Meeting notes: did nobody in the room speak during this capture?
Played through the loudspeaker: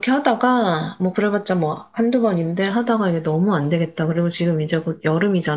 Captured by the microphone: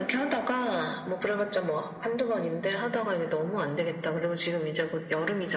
Yes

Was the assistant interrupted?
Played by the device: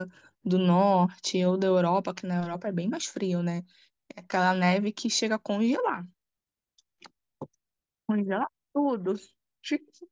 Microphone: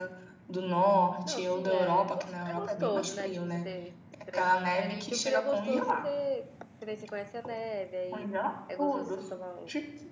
Yes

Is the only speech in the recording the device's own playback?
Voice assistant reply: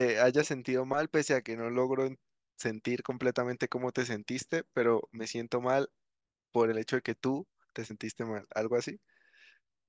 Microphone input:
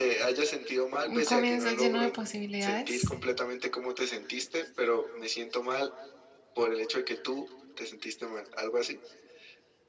No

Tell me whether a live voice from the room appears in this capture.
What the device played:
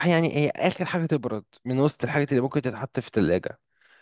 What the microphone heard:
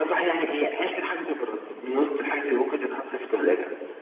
No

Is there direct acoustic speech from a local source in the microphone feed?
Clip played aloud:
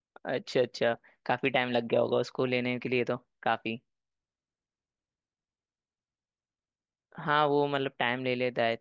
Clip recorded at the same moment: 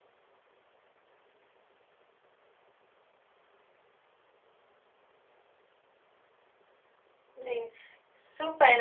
Yes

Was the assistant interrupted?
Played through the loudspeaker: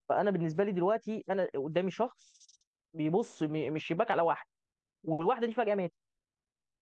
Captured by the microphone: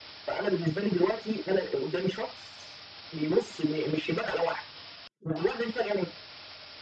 No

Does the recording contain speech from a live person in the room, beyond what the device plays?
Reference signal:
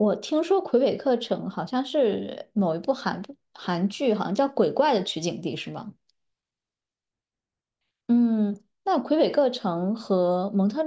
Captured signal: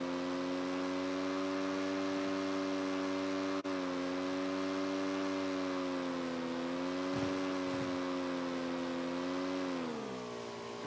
No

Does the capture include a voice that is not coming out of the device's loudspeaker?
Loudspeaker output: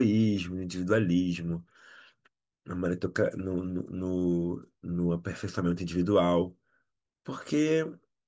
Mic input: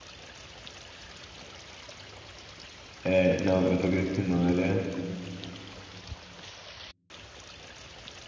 Yes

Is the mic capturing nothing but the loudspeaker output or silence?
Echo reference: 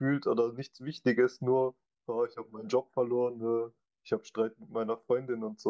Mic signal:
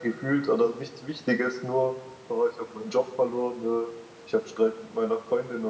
Yes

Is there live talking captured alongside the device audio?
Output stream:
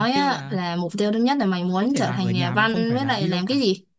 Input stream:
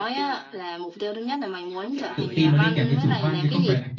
Yes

